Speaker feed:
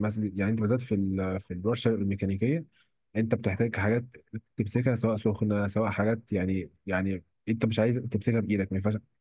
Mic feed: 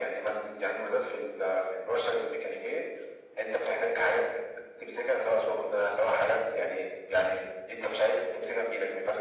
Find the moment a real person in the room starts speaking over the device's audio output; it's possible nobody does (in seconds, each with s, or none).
none